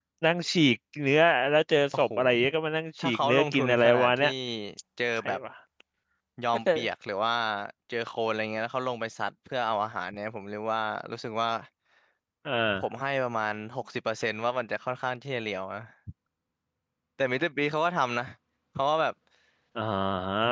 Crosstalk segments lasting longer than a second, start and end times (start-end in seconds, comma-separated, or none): 3.0-4.3